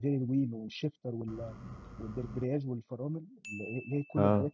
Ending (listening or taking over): listening